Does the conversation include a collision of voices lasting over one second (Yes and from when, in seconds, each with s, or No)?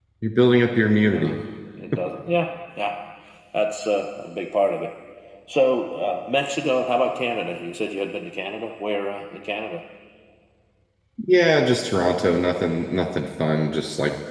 No